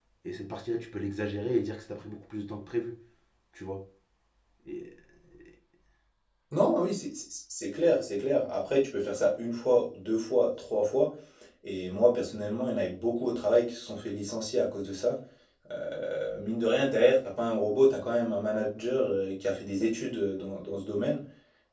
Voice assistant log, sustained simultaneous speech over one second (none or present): none